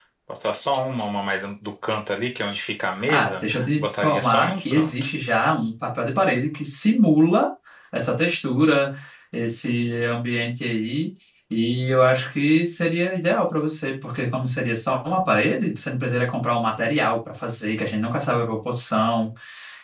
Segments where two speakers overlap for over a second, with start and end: 3.1-4.9

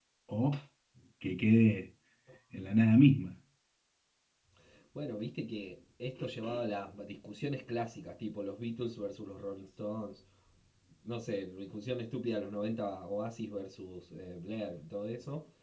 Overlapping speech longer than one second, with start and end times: none

